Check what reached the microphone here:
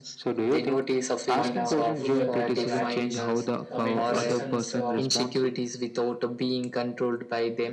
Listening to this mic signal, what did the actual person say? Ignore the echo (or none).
want uh, approval and uh, validations. Uh, when criticisms uh,